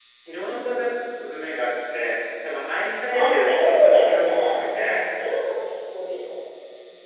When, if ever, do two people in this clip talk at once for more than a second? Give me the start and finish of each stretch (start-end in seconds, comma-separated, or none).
3.1-5.0